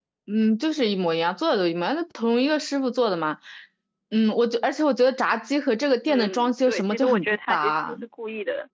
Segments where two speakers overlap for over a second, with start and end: 6.1-8.0

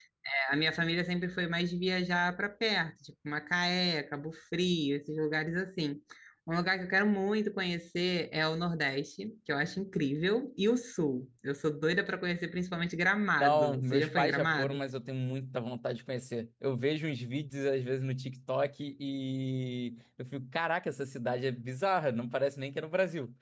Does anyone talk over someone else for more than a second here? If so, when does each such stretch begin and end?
13.4-14.8

